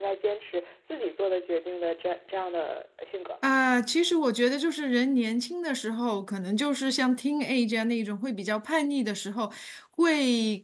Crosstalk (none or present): none